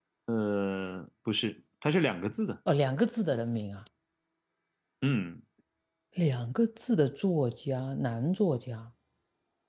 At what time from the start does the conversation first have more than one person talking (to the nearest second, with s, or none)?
none